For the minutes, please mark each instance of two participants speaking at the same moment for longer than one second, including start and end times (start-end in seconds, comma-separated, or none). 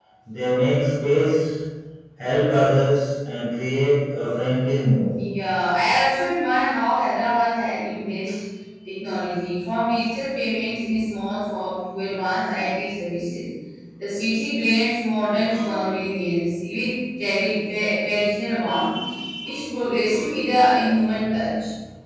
none